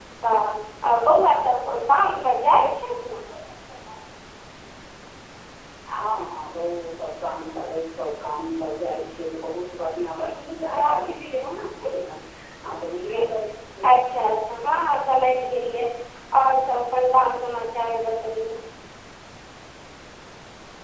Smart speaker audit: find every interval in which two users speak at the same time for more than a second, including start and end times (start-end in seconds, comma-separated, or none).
none